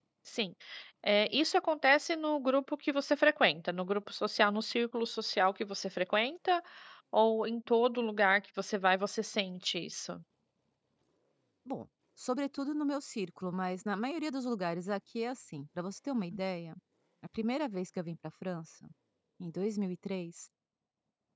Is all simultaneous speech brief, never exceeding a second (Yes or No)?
Yes